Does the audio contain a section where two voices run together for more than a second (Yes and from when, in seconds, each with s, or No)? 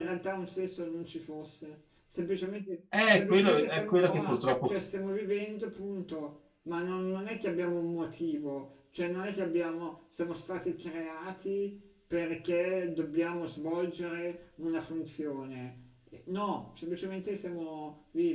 Yes, from 2.9 s